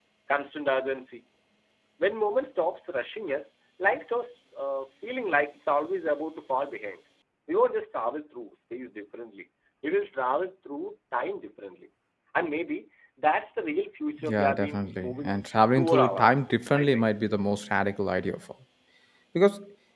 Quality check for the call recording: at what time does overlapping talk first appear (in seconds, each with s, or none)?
14.2 s